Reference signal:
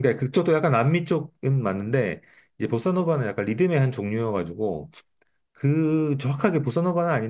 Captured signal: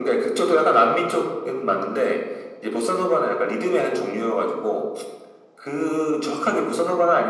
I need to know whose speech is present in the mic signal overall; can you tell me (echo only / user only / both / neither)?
echo only